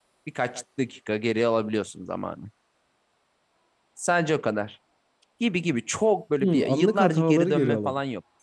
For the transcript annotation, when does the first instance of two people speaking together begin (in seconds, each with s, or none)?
6.4 s